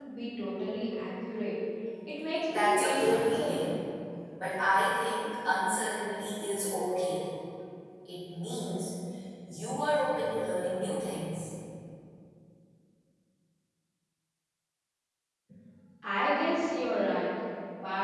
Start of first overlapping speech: 2.5 s

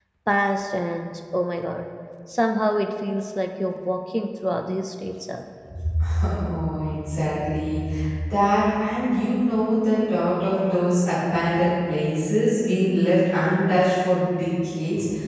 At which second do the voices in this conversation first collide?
none

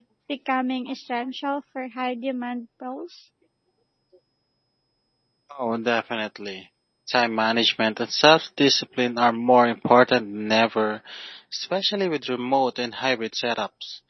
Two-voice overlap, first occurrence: none

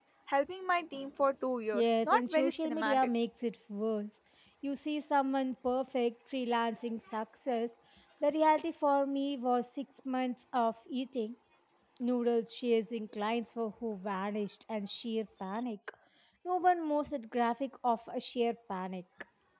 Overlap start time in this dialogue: 1.7 s

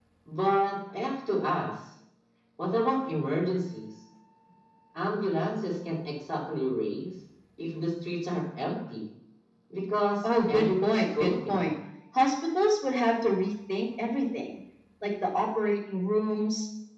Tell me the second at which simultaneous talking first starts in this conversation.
10.2 s

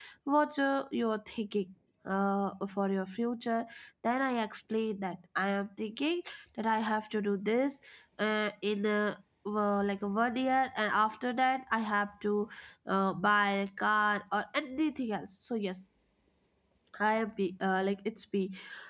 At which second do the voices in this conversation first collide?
none

